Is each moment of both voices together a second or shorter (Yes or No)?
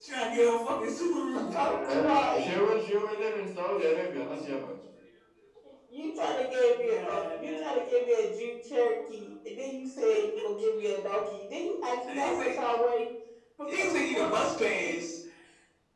No